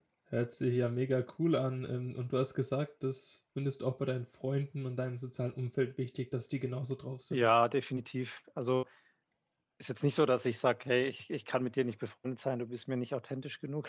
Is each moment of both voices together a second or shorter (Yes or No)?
Yes